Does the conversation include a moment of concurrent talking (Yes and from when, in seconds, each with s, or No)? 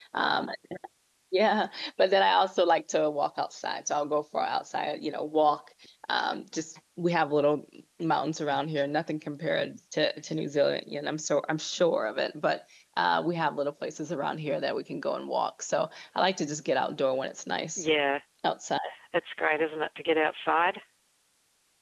No